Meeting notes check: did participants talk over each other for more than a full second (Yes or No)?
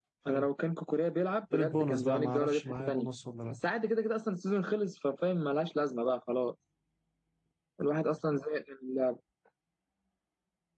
Yes